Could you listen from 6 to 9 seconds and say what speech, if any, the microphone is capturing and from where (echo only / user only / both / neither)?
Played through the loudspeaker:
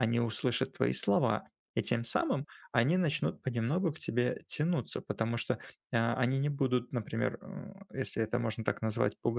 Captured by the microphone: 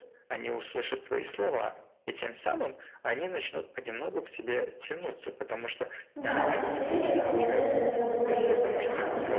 both